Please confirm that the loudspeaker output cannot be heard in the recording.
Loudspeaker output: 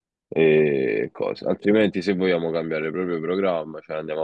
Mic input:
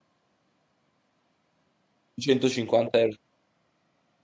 Yes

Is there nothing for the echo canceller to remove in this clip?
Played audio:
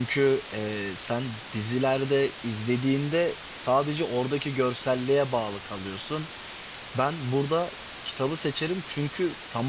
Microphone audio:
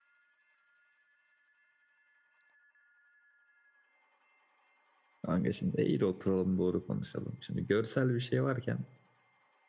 Yes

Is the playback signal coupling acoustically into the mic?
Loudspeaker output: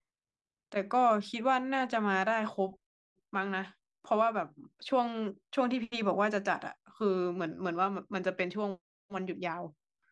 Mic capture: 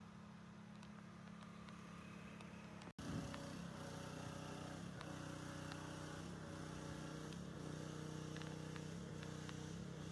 No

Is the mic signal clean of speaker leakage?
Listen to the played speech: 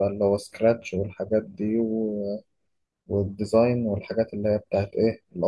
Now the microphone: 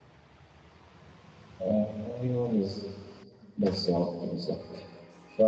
Yes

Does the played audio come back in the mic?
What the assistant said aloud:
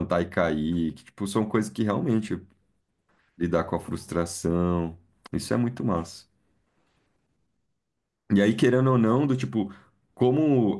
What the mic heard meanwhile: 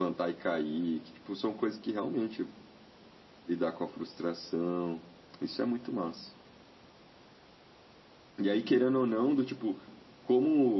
Yes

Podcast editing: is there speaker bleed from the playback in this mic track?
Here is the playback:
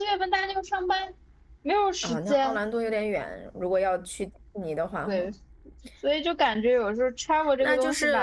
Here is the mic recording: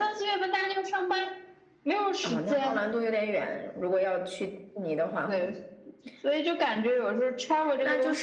Yes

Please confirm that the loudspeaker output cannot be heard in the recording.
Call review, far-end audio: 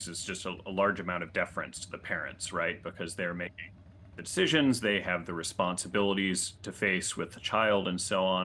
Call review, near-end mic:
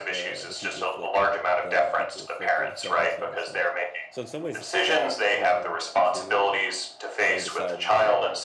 No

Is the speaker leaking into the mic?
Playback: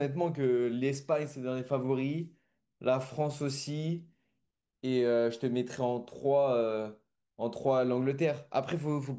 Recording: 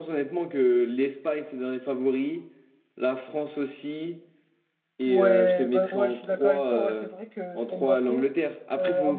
Yes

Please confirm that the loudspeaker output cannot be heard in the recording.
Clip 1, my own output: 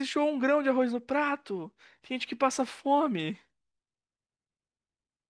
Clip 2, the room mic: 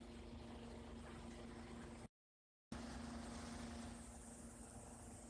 Yes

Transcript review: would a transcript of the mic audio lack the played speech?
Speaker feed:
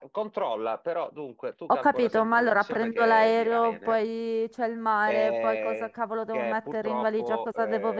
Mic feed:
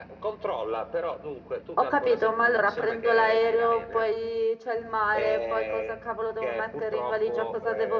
No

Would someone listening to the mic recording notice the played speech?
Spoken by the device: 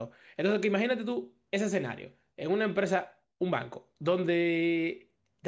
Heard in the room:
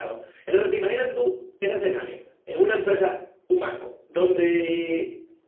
Yes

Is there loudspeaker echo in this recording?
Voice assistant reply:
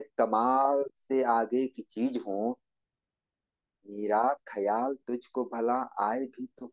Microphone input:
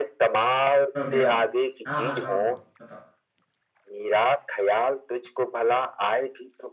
Yes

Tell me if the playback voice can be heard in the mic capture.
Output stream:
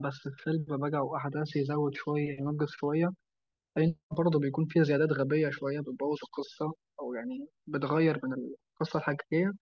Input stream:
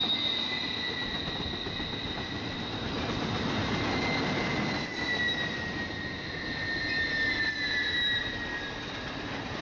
No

